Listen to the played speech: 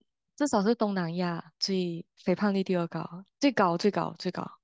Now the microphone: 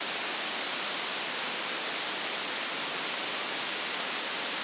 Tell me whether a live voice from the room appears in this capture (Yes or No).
No